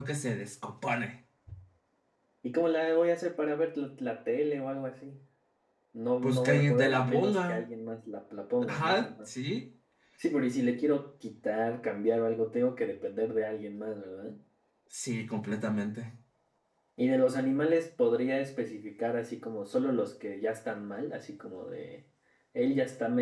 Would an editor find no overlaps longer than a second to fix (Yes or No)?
No